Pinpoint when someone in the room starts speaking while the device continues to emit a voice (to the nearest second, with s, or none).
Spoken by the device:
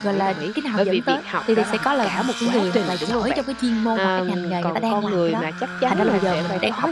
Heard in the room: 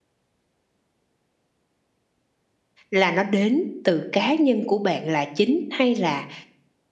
3 s